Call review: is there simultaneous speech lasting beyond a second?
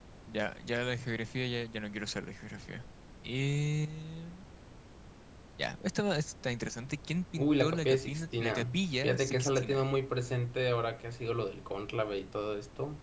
Yes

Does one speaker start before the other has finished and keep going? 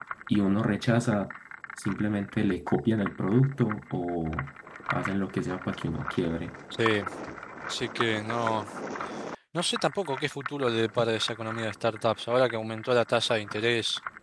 No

